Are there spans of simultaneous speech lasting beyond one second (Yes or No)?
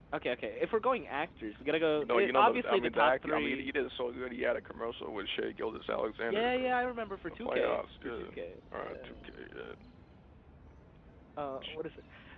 Yes